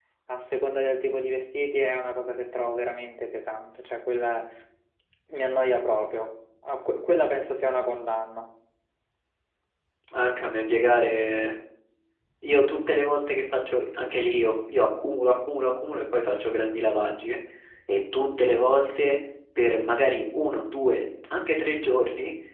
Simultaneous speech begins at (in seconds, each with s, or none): none